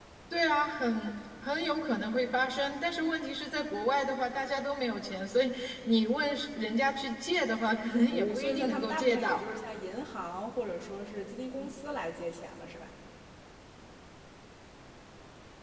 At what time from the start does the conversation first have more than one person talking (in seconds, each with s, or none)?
8.1 s